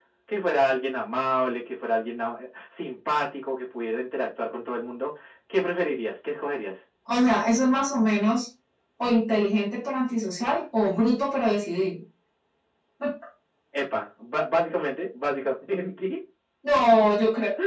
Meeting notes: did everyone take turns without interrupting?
Yes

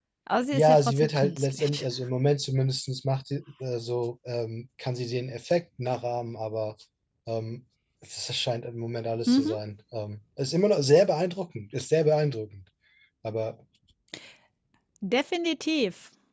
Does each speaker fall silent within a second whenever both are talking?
No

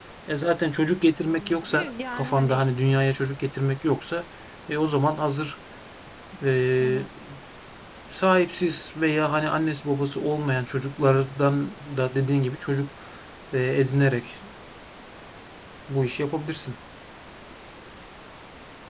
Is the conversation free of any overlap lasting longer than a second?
No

